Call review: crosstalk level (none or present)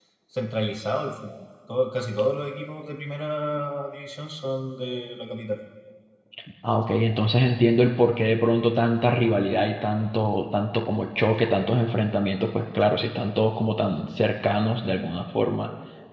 none